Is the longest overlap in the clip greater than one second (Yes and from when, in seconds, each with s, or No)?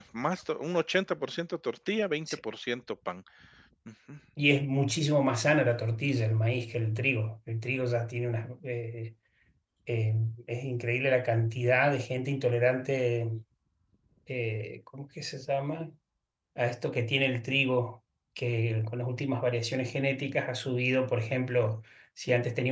No